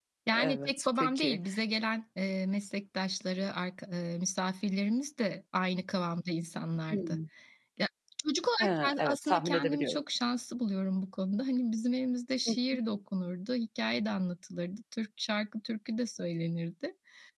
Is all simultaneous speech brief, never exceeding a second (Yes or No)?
No